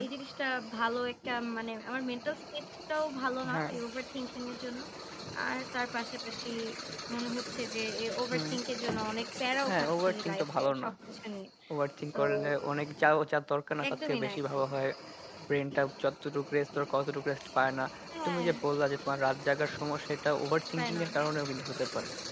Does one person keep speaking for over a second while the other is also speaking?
Yes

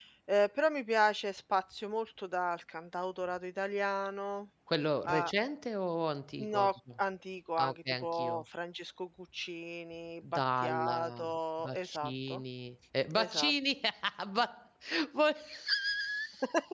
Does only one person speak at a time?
No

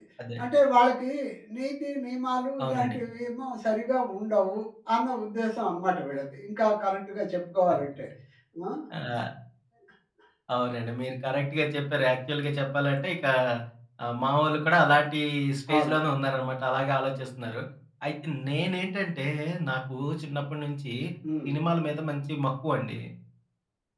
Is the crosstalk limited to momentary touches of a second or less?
Yes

